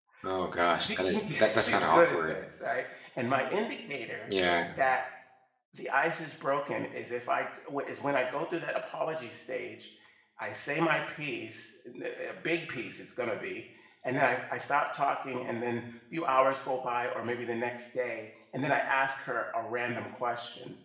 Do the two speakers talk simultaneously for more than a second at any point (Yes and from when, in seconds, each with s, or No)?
Yes, from 0.8 s